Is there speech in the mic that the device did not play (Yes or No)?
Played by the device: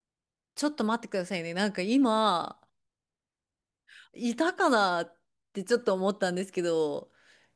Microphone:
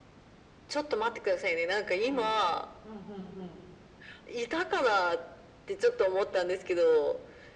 Yes